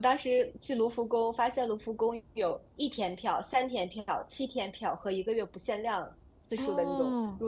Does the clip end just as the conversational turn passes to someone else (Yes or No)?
No